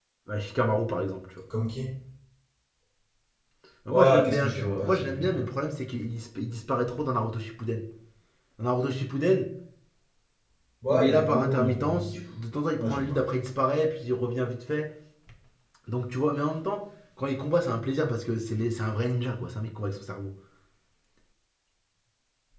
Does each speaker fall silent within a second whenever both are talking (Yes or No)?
No